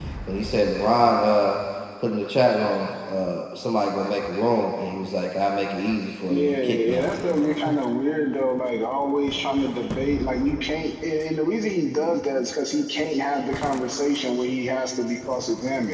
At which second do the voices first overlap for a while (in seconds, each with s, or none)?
6.3 s